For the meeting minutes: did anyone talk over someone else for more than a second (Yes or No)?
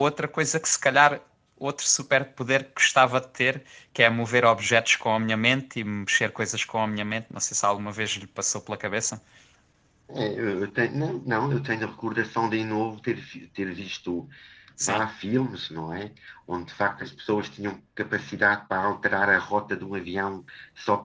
No